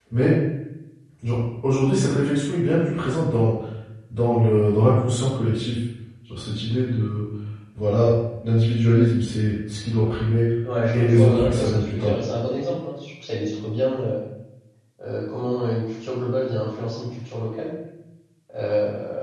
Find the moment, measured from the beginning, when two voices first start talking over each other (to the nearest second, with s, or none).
11 s